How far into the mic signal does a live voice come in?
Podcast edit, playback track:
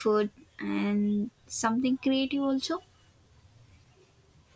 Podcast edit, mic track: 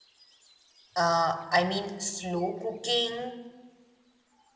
1.0 s

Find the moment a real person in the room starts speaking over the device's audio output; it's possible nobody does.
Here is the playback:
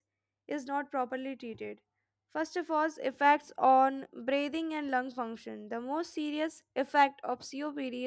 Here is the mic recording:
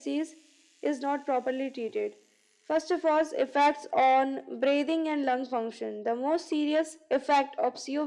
none

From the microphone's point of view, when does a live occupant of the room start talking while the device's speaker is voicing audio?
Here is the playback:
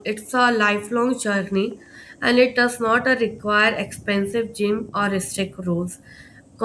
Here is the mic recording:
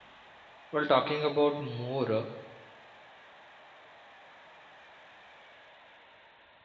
0.7 s

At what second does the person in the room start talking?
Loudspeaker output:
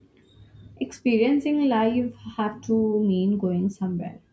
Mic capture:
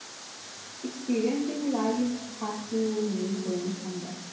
none

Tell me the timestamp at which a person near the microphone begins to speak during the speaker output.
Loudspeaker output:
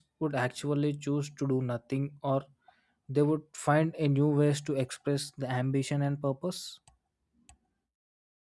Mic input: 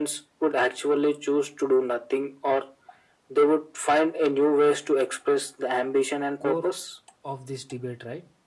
6.4 s

